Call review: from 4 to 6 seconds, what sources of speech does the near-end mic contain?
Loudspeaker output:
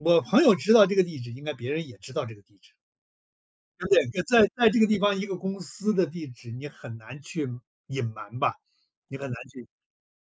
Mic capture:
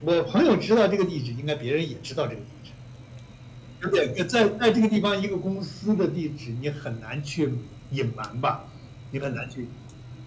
echo only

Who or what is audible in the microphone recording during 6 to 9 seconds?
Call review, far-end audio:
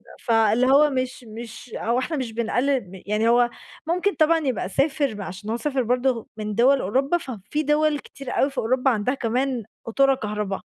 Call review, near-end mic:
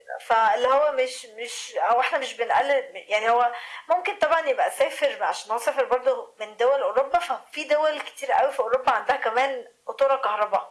echo only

